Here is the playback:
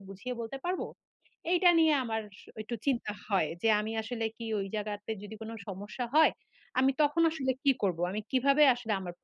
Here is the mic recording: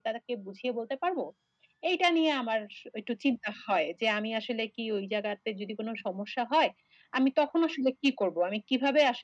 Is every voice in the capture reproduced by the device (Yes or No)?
Yes